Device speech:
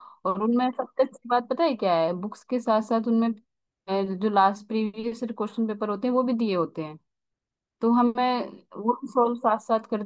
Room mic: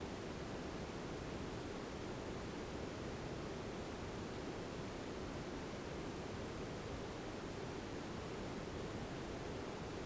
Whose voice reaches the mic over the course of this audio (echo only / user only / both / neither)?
neither